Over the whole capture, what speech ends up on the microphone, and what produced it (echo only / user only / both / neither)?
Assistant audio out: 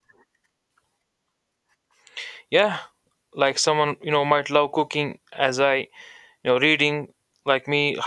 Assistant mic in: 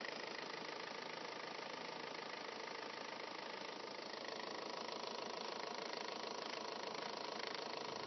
neither